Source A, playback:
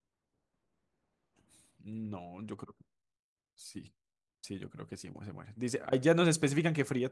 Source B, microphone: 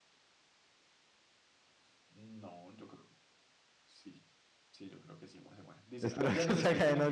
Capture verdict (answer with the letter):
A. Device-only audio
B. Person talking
B